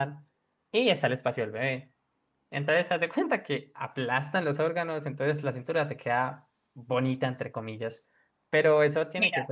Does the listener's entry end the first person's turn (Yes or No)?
No